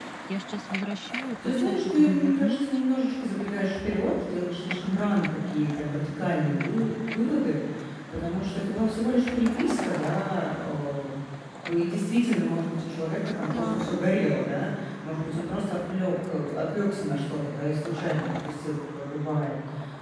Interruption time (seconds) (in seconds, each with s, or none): 1.4 s